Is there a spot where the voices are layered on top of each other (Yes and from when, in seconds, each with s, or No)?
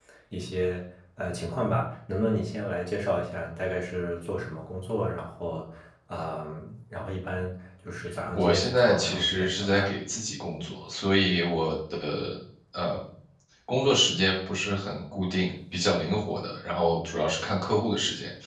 Yes, from 8.3 s